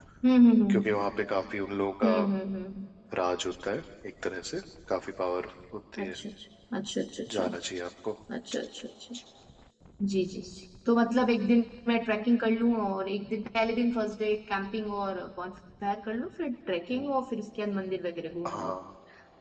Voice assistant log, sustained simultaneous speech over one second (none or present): none